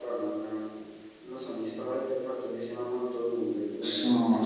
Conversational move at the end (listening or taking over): taking over